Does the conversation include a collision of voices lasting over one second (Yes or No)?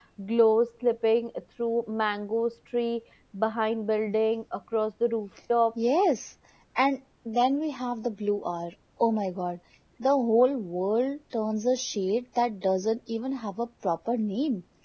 No